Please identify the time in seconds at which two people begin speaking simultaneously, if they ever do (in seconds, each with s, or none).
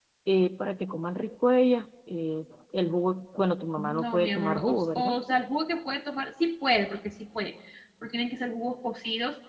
3.8 s